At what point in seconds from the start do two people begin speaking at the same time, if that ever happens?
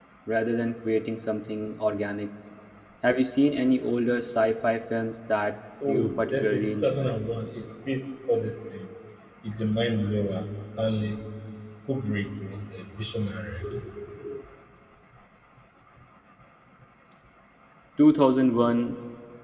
5.8 s

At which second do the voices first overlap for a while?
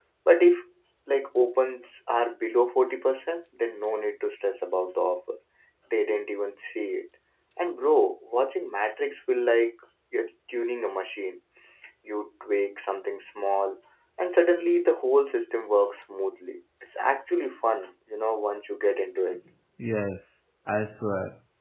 none

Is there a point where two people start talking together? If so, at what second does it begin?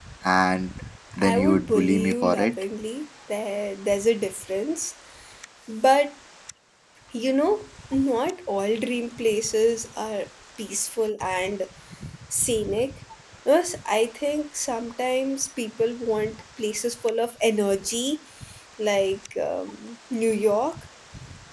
1.2 s

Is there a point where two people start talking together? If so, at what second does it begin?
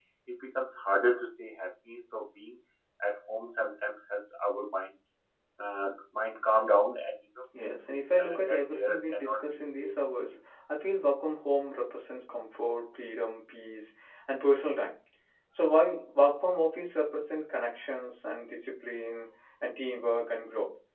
7.5 s

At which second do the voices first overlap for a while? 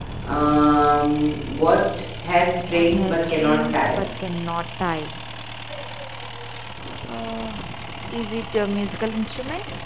2.7 s

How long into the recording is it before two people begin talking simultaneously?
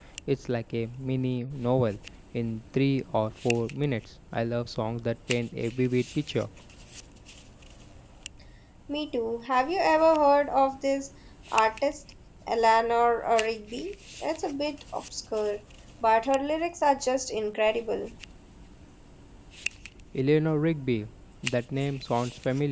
none

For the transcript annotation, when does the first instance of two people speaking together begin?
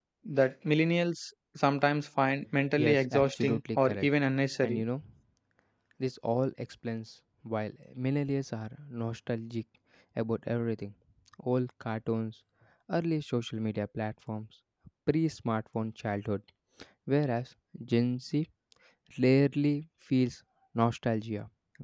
2.8 s

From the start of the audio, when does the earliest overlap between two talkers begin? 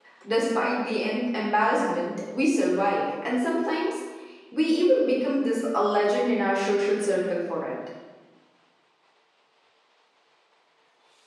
none

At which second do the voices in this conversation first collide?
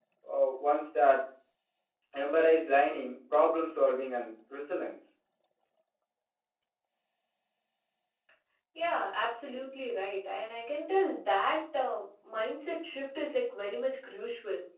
none

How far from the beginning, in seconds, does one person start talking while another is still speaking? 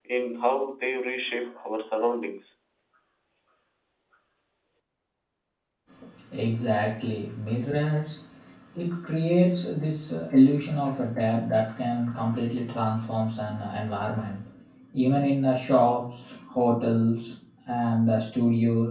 none

